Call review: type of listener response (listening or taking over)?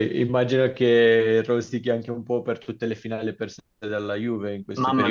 taking over